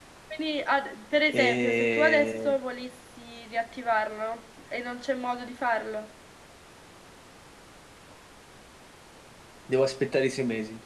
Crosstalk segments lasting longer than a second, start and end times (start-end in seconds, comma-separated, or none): 1.3-2.6